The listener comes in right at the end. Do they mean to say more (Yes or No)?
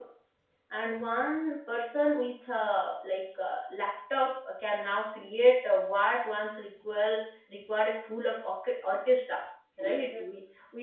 No